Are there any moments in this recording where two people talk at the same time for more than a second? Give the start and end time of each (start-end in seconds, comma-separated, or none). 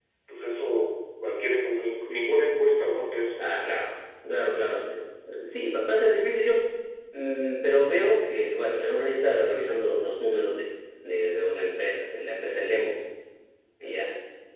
none